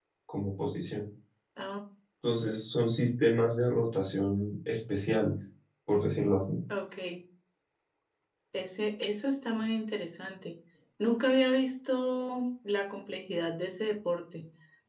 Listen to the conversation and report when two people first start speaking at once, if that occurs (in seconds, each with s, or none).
none